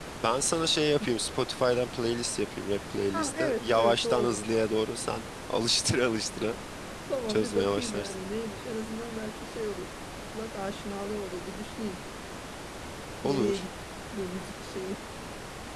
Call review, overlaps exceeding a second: present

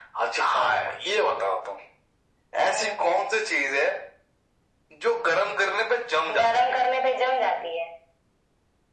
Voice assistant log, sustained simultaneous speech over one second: none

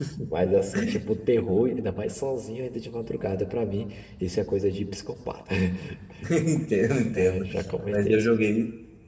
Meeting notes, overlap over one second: none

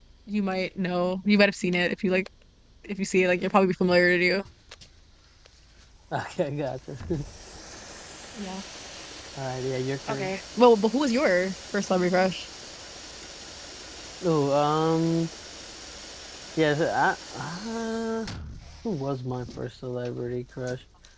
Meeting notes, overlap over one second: none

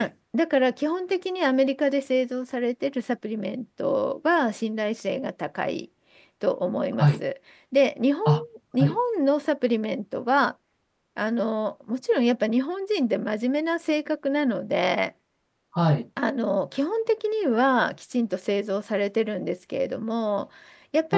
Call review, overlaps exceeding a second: none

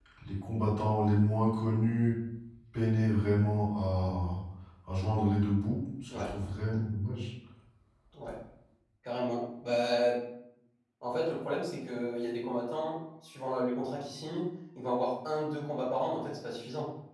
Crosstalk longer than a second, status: none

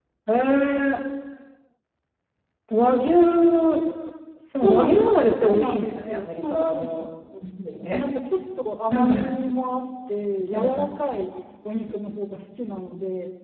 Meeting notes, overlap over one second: present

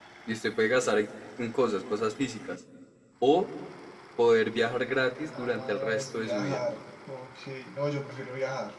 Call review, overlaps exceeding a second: present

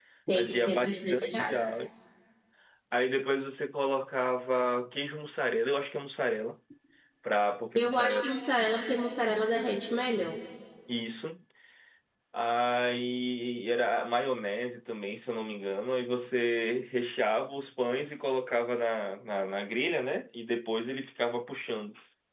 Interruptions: present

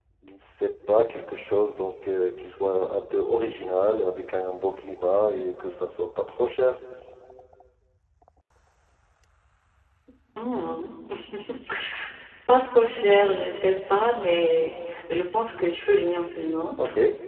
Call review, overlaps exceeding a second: none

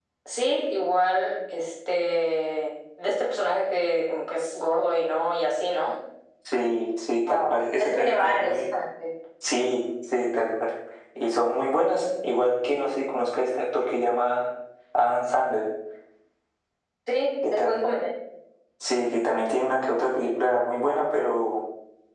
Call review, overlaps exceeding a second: present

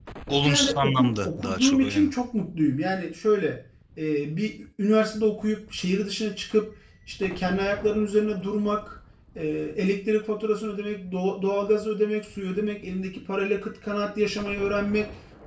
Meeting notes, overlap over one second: present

